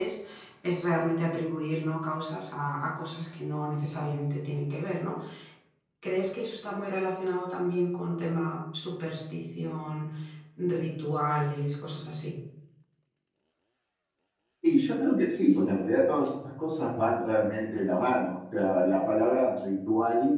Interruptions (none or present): none